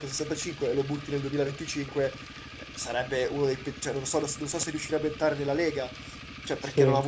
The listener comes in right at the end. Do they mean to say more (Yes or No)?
No